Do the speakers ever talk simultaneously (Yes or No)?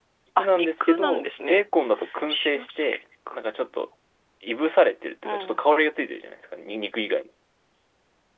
Yes